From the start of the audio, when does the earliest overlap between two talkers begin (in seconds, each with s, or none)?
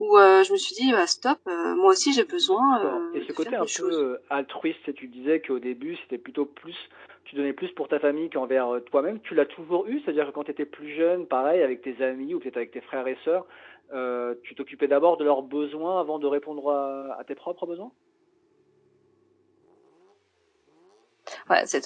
2.3 s